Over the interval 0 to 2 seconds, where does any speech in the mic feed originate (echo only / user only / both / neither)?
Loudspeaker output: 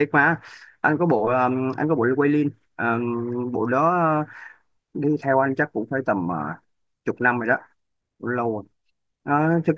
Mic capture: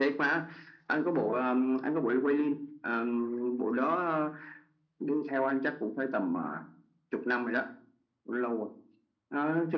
echo only